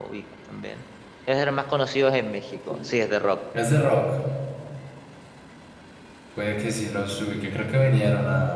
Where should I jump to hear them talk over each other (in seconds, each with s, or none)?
none